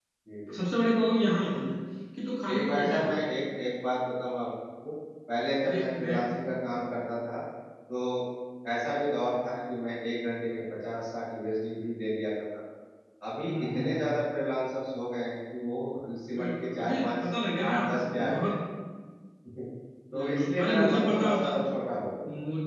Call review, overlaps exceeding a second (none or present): present